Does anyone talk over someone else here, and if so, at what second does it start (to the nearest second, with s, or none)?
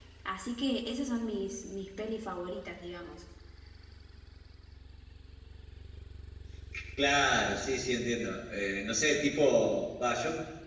none